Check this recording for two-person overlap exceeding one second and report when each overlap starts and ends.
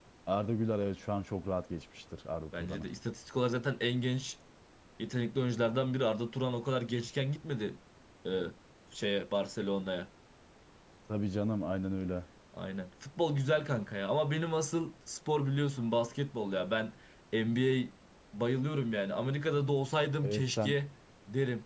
none

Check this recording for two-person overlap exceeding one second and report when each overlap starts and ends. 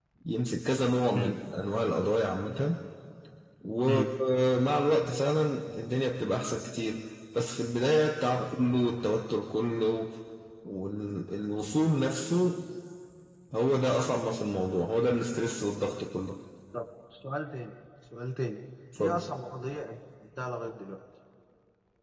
none

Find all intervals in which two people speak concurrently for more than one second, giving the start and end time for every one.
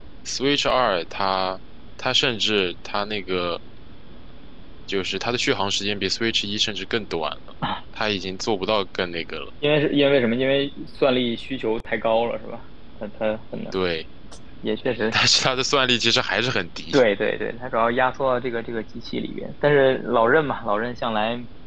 none

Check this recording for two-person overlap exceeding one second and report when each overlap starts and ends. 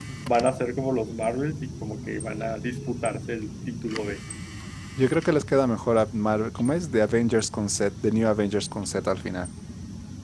none

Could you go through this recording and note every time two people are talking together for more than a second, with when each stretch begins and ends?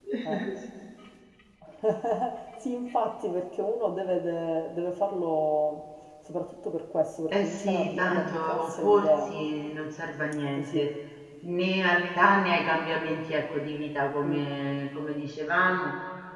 7.3-9.3

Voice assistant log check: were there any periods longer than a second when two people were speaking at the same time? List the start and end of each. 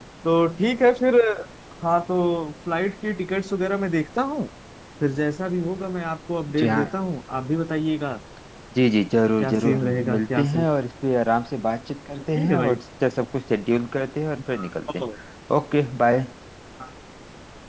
9.4-10.7

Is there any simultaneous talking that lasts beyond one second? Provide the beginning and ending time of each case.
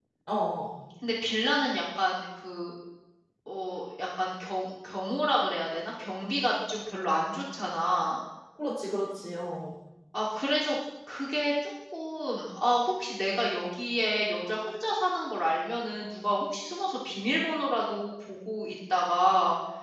none

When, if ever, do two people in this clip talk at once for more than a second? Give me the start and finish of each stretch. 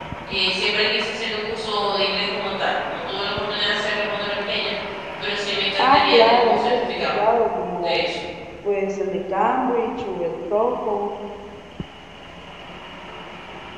5.8-7.2

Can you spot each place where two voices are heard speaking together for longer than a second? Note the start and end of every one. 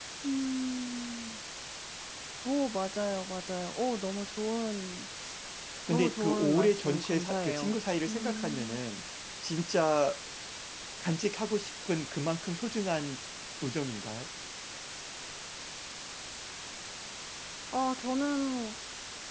5.9-8.8

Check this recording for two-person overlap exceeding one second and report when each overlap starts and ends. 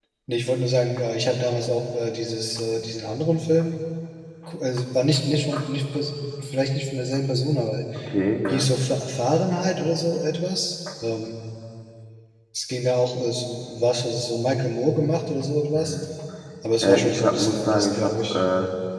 16.8-18.4

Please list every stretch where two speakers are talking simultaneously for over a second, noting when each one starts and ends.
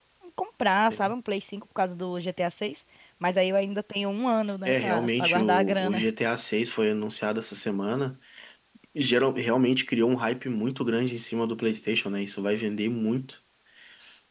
4.6-6.1

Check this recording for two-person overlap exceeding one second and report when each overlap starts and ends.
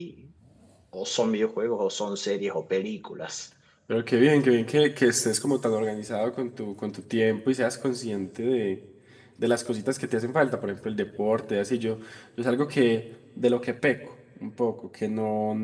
none

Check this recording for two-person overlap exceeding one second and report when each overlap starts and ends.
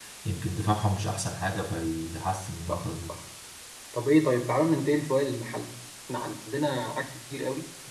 none

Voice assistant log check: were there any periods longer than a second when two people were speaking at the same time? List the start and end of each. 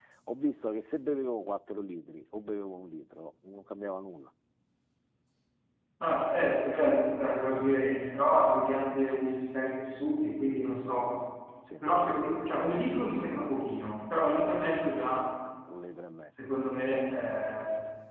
none

